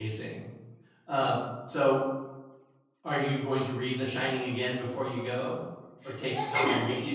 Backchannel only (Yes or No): No